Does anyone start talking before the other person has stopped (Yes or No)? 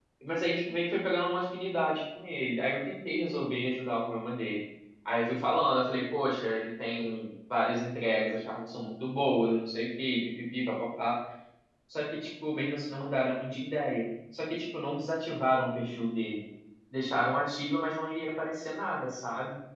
No